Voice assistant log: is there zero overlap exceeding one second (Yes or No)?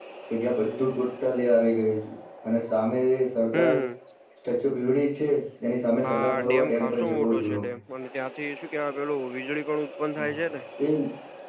No